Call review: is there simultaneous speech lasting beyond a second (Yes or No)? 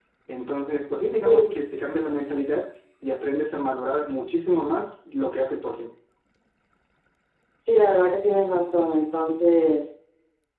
No